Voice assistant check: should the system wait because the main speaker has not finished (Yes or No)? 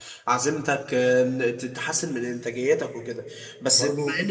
Yes